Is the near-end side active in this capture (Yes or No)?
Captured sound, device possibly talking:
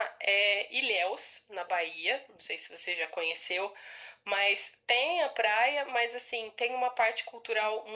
No